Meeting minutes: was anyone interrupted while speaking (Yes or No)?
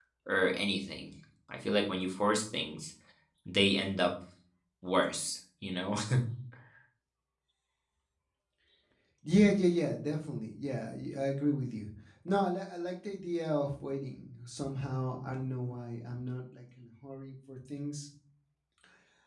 No